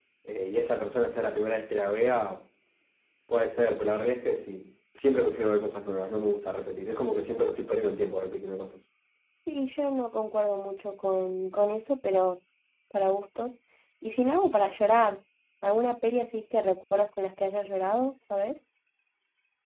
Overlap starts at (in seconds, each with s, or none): none